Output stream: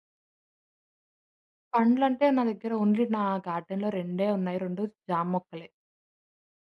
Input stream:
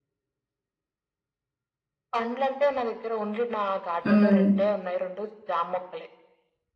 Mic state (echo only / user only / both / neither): both